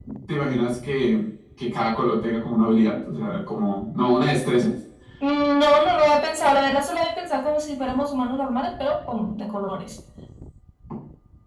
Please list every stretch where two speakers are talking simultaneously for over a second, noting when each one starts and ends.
none

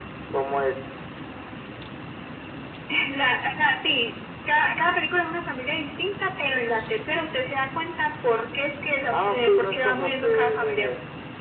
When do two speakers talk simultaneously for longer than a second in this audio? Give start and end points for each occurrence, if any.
9.1-10.9

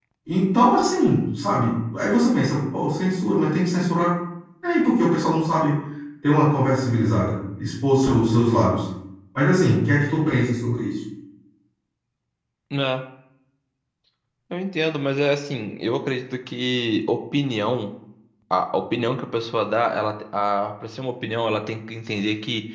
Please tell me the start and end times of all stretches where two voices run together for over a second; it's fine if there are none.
none

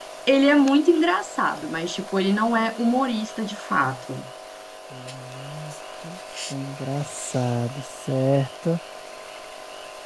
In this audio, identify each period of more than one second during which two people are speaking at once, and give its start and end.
none

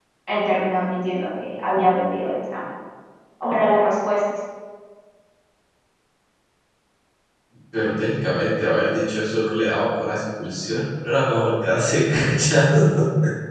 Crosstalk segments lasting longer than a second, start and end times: none

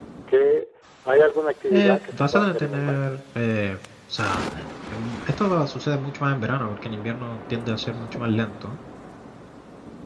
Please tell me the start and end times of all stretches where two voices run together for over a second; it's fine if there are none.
1.7-3.0

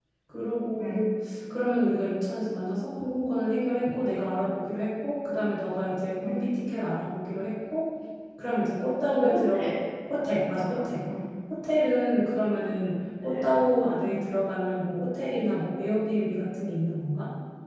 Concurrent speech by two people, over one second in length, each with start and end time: none

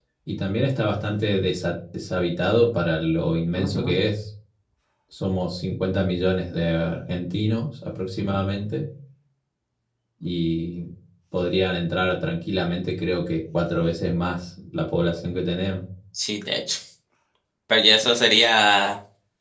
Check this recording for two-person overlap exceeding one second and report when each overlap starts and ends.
none

